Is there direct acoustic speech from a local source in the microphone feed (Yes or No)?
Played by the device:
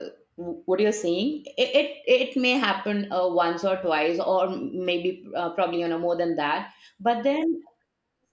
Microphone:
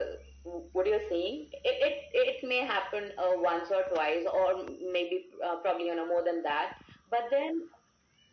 No